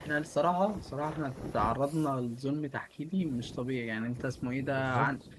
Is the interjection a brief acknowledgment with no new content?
Yes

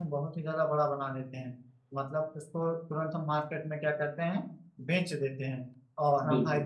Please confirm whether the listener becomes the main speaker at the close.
No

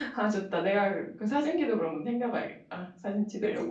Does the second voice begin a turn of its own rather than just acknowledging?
Yes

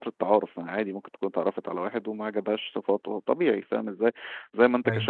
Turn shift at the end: No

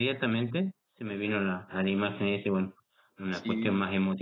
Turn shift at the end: No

